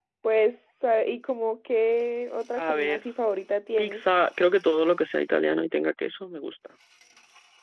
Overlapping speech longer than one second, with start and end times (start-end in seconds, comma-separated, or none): none